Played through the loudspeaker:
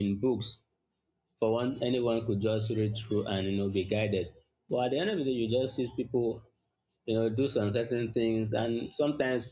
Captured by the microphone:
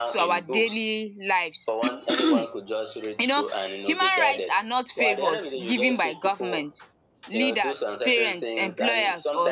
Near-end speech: present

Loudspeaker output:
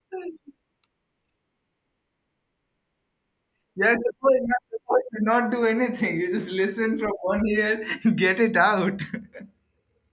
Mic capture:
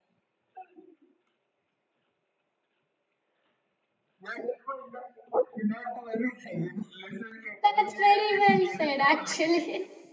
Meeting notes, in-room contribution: present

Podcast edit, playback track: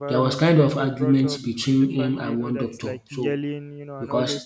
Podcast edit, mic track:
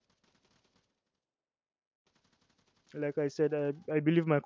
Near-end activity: present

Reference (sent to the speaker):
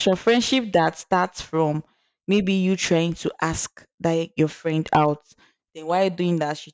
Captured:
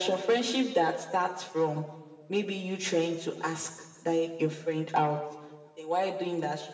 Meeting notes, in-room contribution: none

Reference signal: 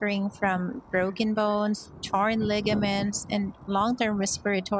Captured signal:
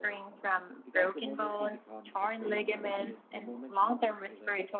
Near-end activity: present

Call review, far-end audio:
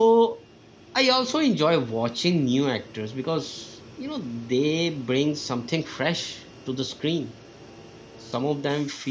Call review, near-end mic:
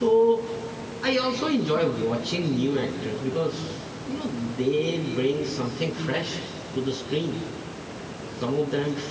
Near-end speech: none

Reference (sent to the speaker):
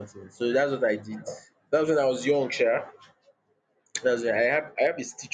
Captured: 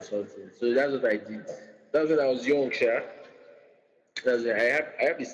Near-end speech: none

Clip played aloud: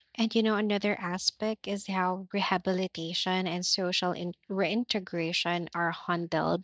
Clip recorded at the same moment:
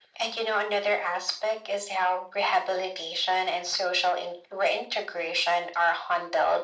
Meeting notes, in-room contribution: none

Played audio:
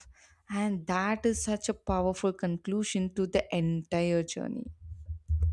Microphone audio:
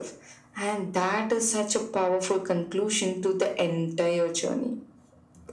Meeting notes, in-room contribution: none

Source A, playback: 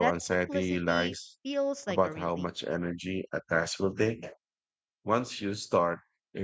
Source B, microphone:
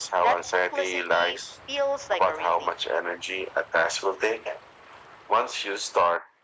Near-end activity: none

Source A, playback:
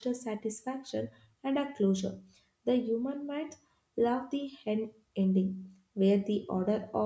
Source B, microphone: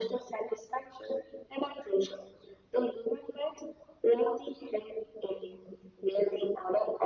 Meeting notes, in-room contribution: none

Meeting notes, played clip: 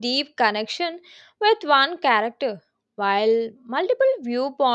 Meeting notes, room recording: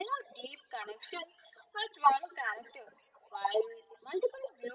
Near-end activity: none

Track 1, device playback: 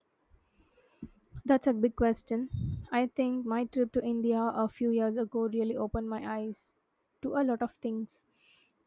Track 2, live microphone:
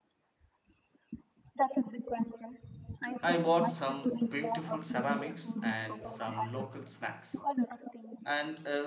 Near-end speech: present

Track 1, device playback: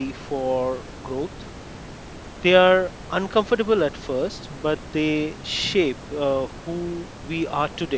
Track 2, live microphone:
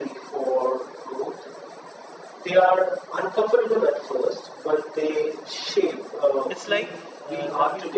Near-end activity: present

